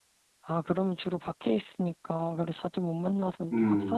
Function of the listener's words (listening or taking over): taking over